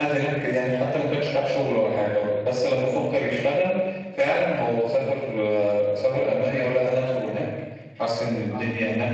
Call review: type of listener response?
listening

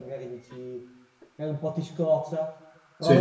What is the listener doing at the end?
listening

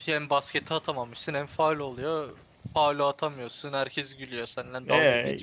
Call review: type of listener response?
taking over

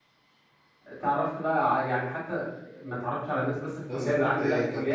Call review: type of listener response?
taking over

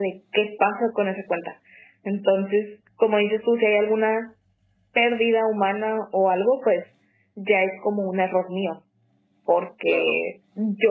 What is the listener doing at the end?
listening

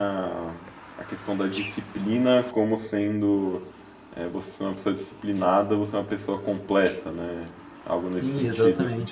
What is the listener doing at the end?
taking over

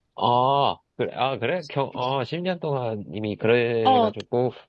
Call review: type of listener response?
taking over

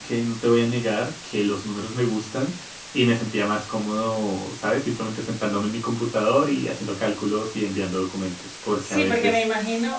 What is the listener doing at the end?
taking over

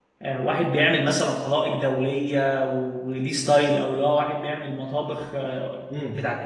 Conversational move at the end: taking over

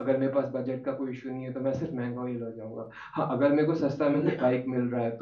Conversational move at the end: listening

